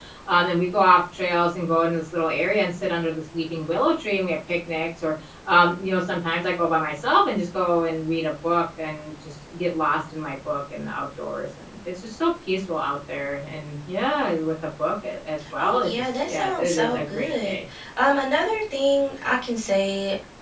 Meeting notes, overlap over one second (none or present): present